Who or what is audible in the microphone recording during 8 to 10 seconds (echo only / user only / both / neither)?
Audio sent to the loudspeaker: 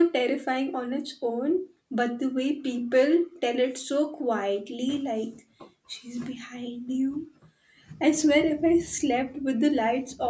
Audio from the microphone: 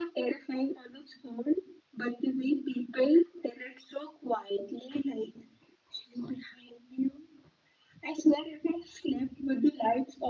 echo only